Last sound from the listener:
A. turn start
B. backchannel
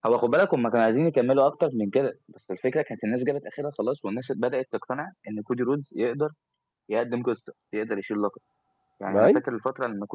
B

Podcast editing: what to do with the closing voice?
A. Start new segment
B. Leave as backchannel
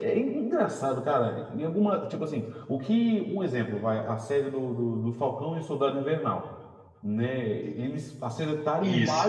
B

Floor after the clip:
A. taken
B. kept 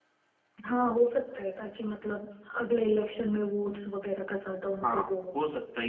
A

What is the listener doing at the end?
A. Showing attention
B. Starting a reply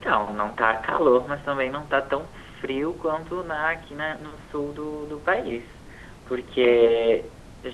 A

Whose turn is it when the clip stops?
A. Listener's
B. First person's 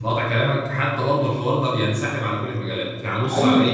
B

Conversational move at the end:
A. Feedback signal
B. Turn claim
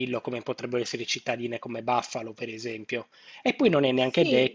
A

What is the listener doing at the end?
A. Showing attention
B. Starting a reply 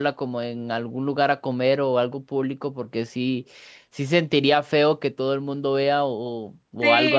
B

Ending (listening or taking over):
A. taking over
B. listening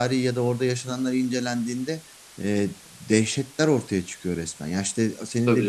B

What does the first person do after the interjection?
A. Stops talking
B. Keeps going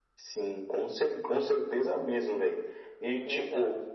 B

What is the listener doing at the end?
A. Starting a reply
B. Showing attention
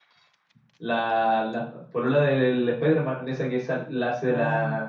A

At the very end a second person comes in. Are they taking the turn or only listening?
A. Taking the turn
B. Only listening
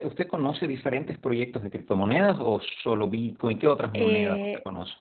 A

